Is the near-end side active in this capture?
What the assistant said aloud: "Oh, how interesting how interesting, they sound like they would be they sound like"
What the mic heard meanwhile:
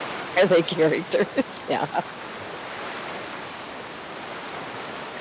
Yes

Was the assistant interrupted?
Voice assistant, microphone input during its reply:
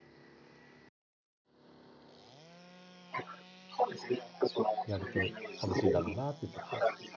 Yes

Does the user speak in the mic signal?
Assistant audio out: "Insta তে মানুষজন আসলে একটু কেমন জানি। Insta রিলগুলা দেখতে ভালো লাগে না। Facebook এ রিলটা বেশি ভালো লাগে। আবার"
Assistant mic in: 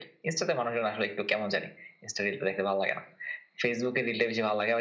No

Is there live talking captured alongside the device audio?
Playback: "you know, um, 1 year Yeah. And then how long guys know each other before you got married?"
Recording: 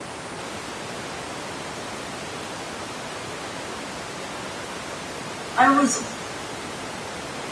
Yes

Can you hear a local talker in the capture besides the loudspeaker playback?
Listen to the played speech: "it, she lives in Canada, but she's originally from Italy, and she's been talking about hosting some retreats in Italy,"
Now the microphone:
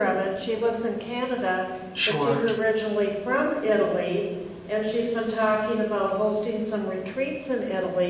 Yes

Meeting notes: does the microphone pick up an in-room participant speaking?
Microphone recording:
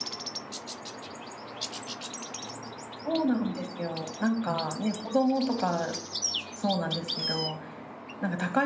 Yes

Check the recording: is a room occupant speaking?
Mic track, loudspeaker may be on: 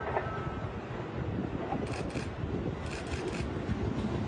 No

